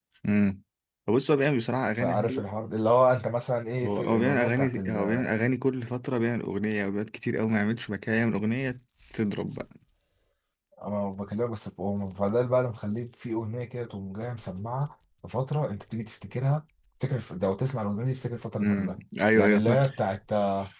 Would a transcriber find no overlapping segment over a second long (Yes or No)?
No